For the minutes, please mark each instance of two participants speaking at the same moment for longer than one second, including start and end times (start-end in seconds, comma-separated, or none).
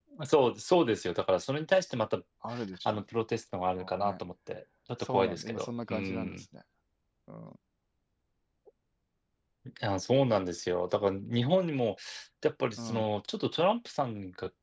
5.1-6.3